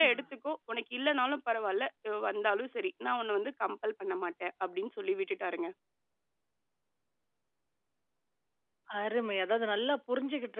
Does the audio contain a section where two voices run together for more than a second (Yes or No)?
No